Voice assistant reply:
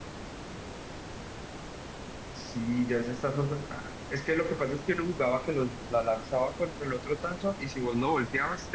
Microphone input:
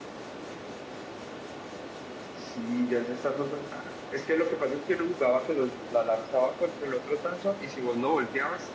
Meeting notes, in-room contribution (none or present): none